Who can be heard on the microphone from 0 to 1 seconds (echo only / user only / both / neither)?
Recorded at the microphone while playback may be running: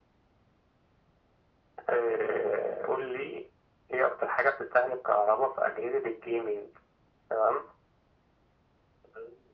neither